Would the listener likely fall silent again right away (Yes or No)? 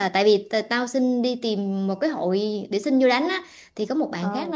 Yes